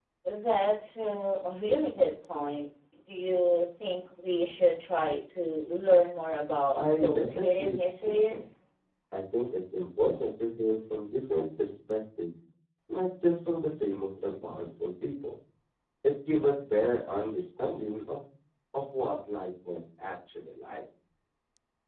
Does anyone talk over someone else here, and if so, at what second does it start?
6.8 s

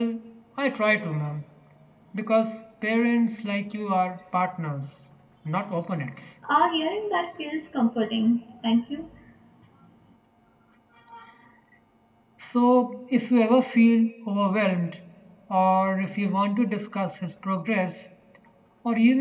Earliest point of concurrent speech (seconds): none

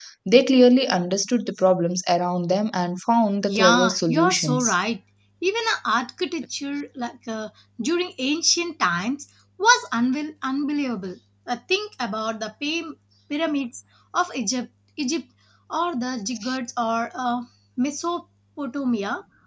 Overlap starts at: 3.5 s

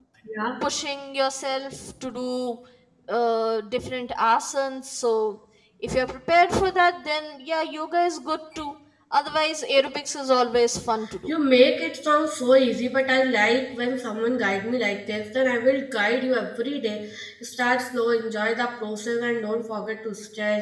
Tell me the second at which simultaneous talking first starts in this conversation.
none

